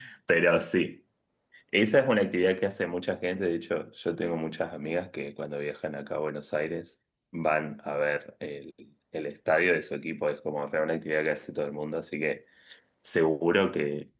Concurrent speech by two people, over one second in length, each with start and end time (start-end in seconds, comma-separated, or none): none